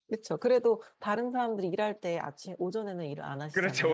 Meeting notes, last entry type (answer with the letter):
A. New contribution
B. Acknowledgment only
A